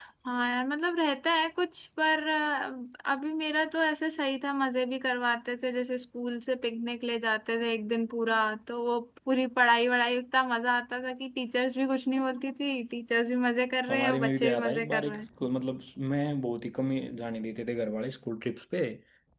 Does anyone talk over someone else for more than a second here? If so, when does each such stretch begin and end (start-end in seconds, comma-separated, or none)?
13.9-15.2